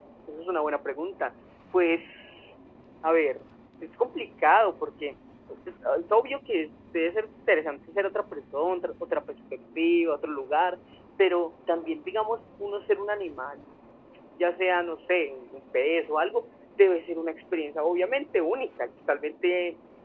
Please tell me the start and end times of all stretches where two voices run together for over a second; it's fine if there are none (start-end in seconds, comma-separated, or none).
none